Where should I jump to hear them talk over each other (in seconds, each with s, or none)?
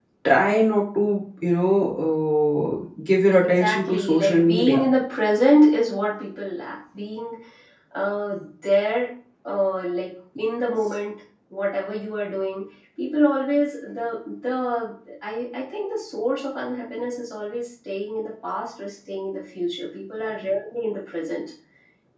3.4 s